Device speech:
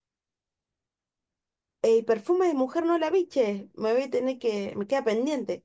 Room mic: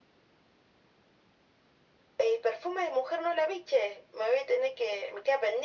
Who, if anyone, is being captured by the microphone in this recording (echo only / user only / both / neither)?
echo only